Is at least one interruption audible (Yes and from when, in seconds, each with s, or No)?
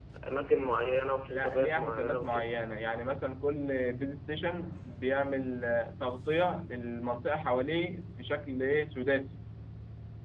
Yes, from 1.3 s